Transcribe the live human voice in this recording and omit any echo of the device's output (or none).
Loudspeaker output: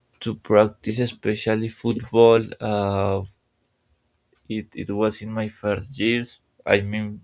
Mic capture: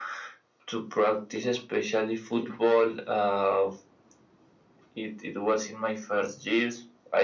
none